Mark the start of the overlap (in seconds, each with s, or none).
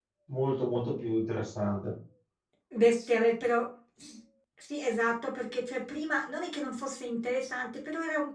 none